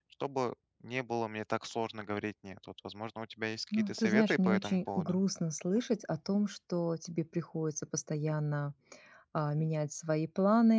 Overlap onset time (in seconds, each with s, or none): 3.7 s